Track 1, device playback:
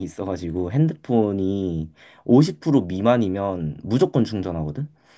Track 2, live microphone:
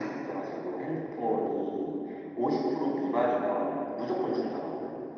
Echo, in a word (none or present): present